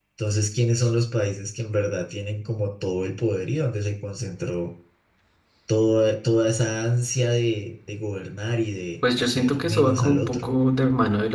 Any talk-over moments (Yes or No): Yes